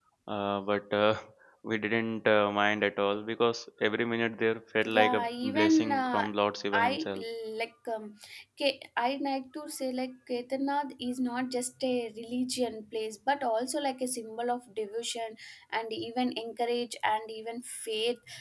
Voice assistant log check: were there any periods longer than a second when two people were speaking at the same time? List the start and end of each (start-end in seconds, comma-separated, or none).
4.9-6.3